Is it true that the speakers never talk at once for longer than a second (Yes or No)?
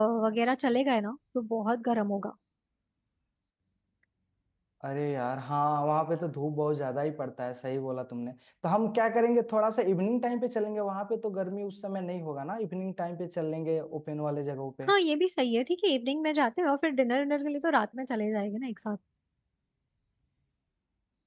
Yes